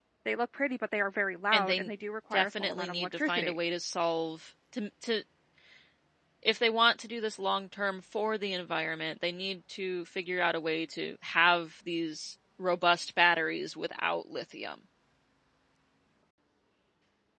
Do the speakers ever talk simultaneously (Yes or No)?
Yes